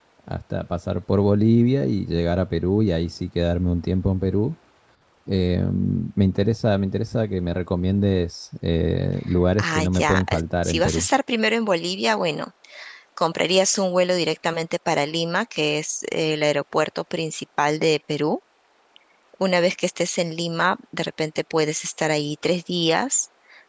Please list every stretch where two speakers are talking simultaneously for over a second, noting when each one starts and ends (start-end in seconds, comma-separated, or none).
9.6-11.1